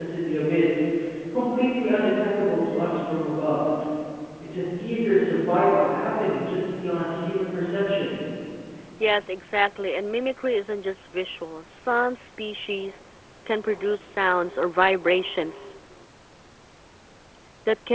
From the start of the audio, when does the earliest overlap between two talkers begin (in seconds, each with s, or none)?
none